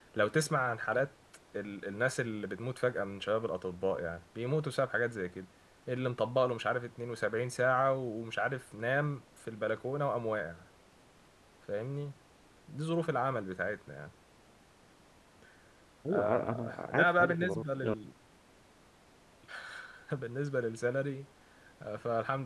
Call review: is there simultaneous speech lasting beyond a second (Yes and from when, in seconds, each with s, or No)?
Yes, from 16.1 s